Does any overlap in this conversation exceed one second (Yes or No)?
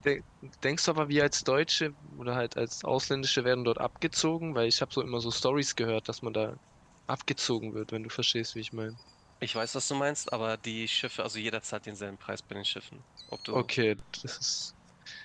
No